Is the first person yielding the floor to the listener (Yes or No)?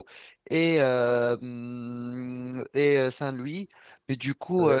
No